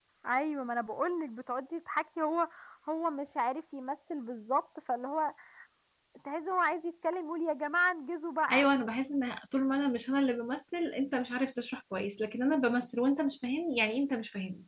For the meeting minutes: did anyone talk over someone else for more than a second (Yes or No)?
No